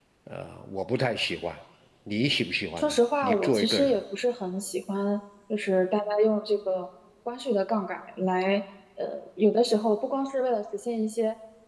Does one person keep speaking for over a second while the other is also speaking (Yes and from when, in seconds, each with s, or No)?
Yes, from 2.8 s